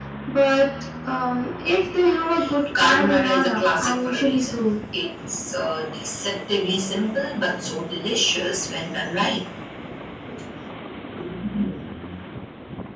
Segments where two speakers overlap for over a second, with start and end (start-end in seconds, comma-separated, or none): 2.8-4.6